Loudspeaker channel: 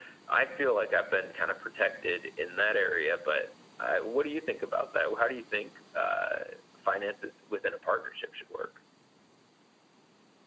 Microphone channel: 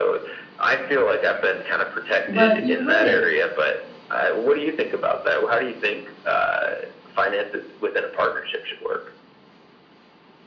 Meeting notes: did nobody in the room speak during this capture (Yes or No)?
No